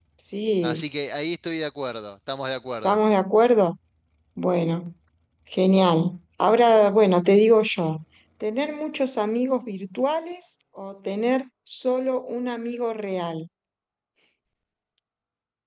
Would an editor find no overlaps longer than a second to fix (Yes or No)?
Yes